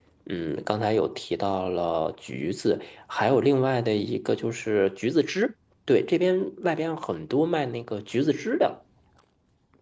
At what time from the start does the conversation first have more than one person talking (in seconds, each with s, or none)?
none